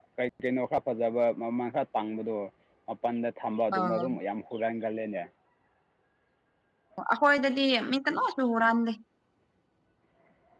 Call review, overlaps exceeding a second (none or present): none